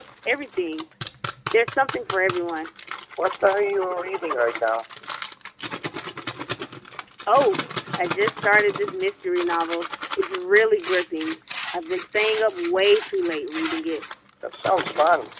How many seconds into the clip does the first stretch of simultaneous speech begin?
none

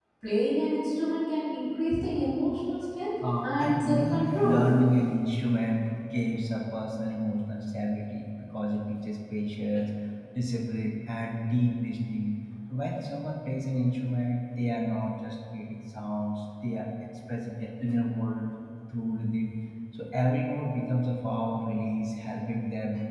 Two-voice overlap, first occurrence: 3.2 s

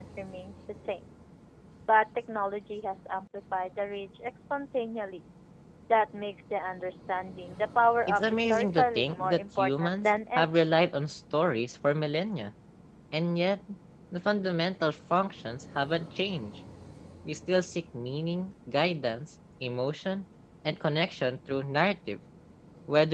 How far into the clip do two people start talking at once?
8.1 s

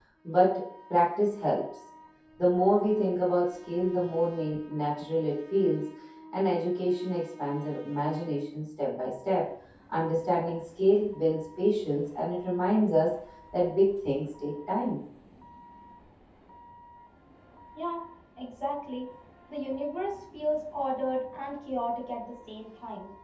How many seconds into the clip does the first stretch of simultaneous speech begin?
none

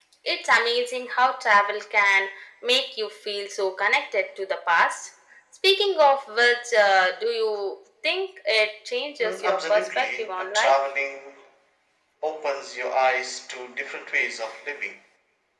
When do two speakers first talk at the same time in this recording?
9.2 s

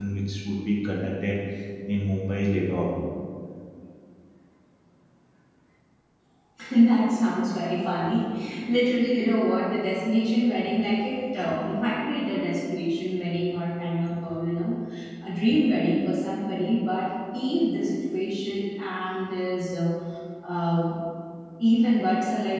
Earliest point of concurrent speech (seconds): none

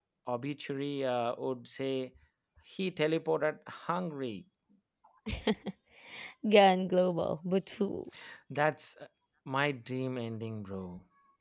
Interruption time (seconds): none

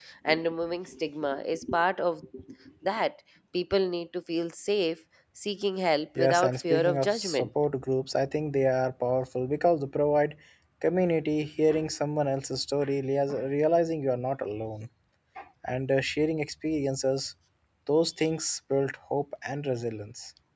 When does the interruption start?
6.2 s

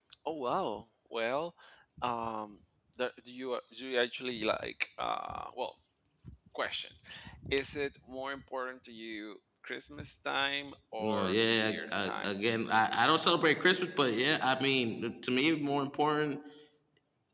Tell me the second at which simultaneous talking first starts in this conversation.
11.0 s

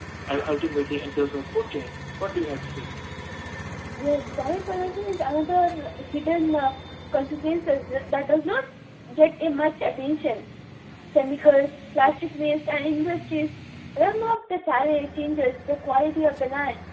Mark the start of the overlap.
none

